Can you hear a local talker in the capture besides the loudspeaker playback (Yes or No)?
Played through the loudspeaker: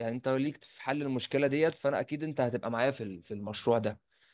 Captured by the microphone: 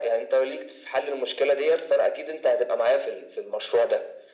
No